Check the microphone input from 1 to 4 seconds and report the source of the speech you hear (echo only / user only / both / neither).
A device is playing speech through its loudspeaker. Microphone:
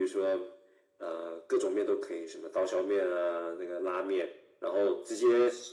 echo only